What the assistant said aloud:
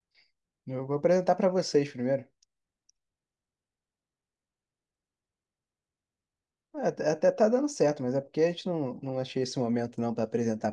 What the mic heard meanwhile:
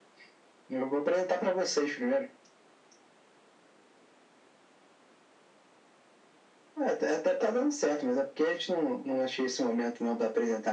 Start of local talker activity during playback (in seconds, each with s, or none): none